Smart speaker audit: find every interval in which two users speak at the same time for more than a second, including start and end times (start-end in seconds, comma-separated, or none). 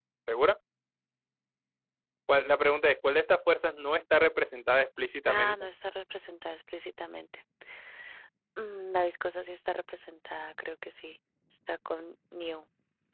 none